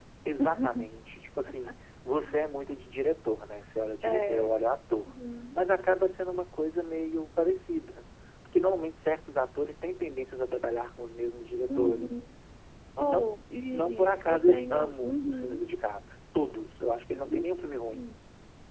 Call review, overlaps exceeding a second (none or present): present